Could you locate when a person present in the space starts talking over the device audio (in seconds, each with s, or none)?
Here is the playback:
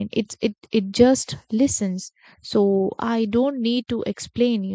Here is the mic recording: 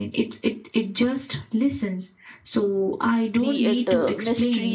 3.4 s